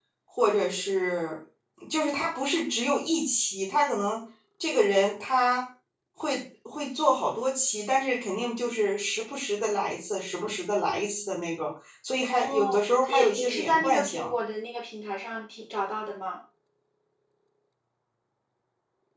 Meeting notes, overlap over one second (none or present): present